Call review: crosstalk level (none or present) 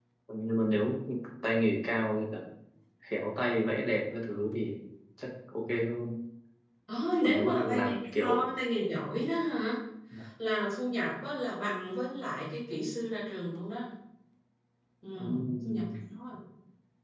present